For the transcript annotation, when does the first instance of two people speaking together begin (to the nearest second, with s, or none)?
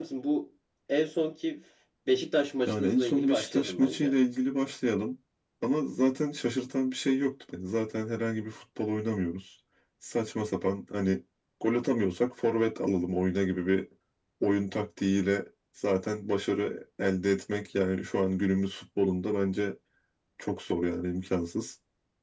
3 s